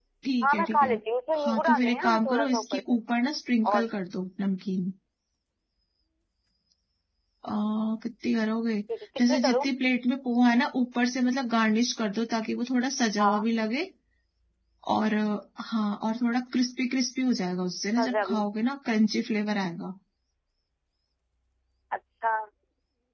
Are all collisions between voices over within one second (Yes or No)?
No